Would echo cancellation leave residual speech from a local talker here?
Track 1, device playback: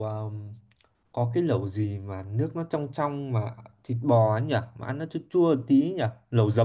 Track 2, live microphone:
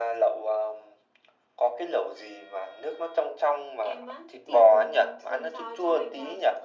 Yes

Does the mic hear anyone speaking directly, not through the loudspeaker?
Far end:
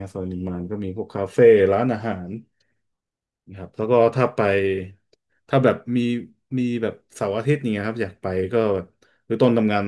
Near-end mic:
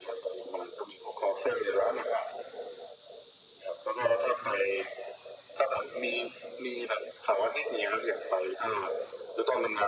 No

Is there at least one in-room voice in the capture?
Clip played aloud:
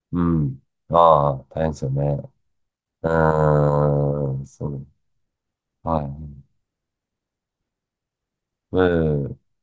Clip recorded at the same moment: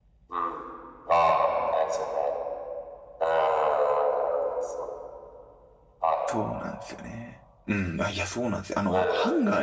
Yes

